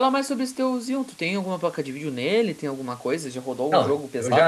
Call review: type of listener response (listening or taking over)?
taking over